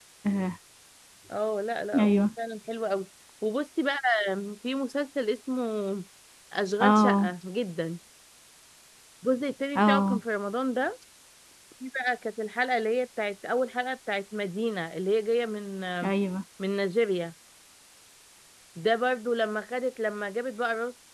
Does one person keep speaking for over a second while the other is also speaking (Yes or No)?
No